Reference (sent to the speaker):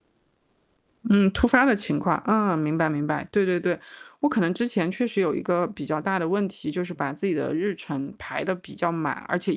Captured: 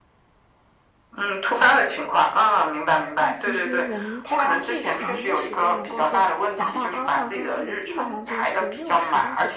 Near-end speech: present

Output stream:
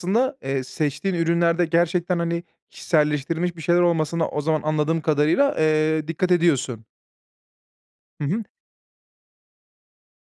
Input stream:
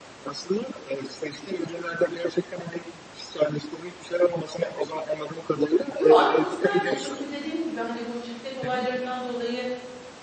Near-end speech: present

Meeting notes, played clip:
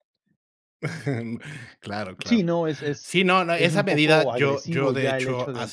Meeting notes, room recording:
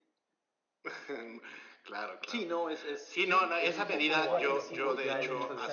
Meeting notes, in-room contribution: present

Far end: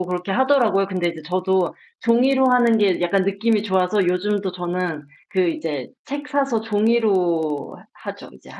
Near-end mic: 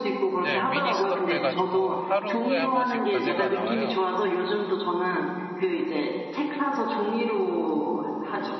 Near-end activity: present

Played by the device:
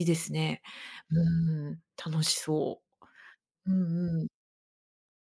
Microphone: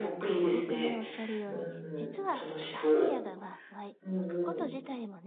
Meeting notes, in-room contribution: present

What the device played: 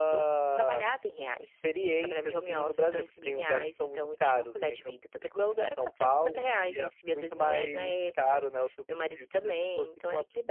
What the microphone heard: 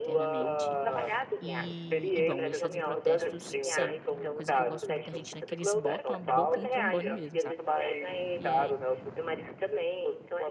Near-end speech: present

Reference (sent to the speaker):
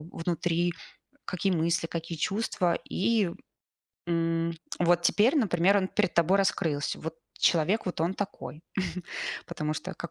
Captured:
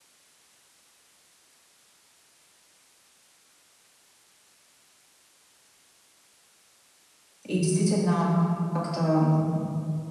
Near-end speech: present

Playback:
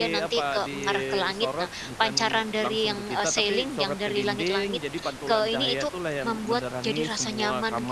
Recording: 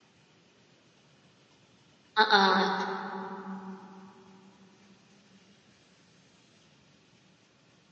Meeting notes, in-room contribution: present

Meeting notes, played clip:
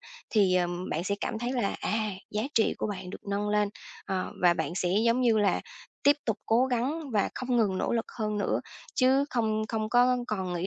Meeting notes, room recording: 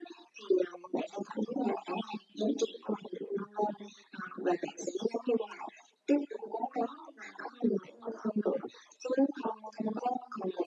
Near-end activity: none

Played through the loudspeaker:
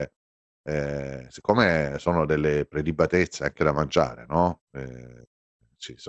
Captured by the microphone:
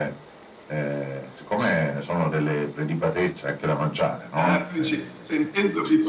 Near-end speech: present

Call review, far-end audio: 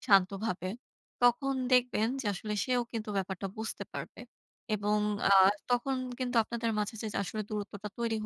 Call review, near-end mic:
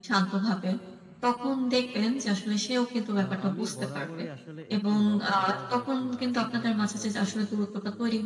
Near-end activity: present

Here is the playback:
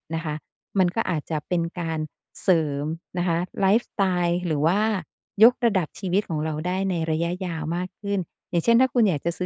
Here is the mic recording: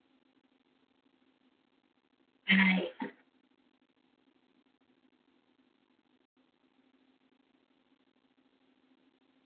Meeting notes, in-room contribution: present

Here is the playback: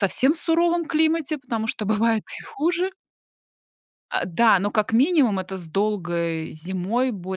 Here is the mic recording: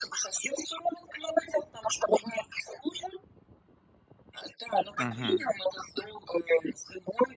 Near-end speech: present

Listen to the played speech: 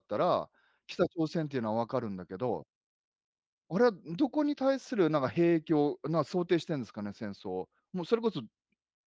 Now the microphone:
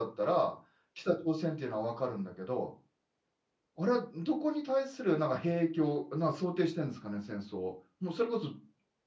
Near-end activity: none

